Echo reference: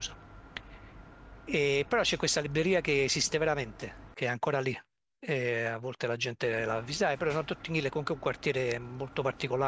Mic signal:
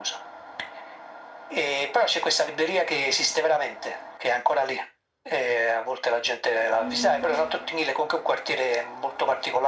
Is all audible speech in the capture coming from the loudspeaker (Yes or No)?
No